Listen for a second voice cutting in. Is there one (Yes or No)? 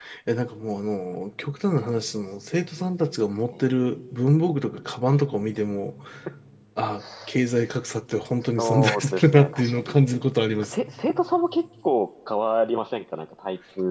Yes